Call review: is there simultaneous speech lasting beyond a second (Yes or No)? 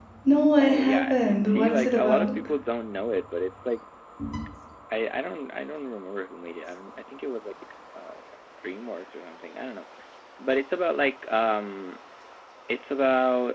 Yes